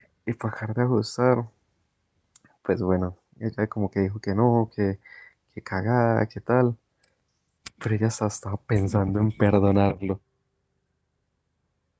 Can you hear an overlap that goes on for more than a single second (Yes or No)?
No